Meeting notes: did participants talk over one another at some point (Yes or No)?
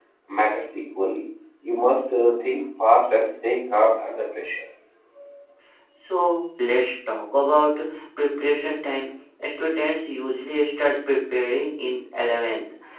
No